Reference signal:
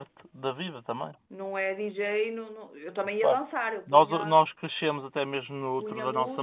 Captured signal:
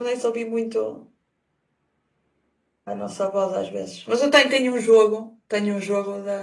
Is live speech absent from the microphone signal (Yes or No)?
No